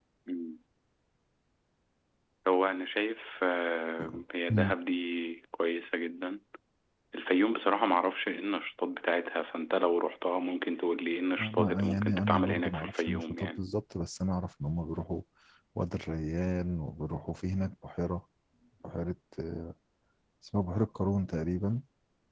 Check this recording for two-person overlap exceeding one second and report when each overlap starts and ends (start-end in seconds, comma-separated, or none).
11.4-13.6